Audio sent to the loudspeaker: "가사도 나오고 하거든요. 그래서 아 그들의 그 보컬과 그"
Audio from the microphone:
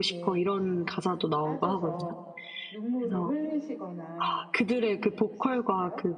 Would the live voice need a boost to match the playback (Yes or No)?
Yes